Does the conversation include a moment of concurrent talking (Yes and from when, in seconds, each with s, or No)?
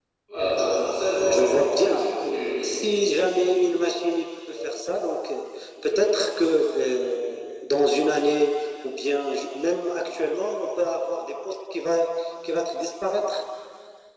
Yes, from 0.6 s